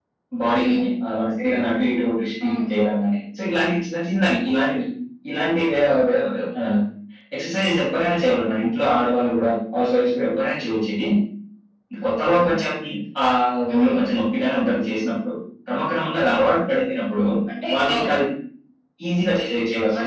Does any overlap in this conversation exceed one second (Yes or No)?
No